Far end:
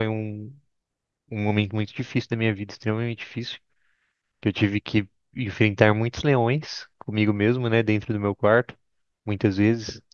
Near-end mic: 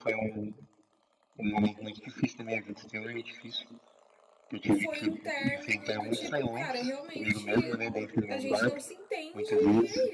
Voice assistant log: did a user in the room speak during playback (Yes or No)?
Yes